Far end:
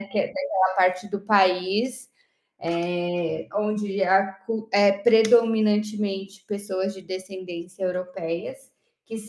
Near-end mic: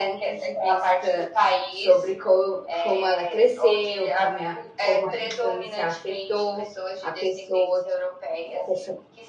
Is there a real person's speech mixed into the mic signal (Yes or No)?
Yes